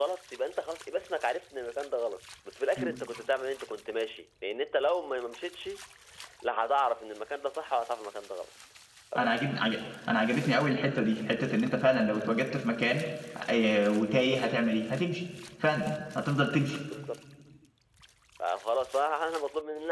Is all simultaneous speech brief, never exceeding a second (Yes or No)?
Yes